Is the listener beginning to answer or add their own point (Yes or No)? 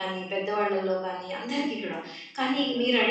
No